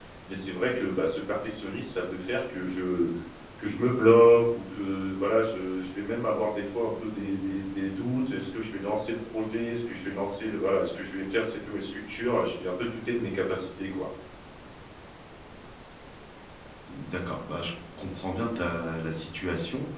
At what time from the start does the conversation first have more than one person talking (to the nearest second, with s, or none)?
none